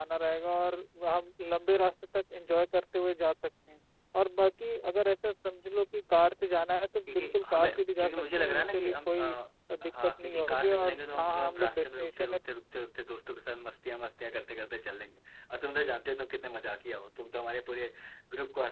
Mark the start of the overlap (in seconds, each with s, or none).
7.1 s